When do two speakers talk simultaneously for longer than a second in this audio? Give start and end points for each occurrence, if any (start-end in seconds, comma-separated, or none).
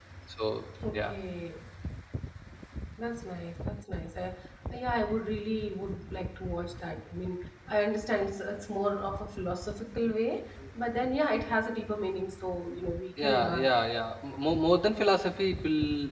none